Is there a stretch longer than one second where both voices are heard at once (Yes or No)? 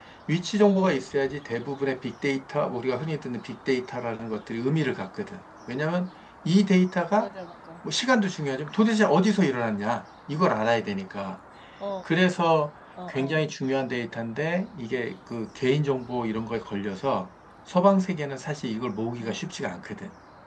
No